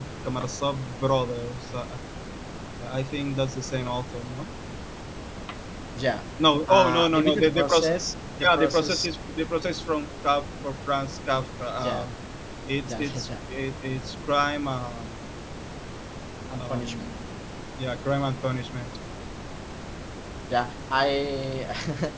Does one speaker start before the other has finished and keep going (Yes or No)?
Yes